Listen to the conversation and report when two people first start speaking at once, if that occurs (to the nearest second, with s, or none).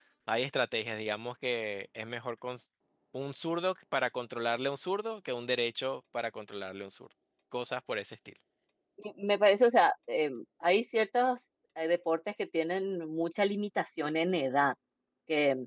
none